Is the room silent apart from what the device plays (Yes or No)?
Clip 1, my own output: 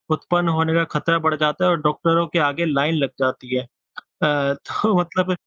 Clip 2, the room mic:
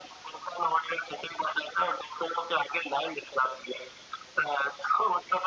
Yes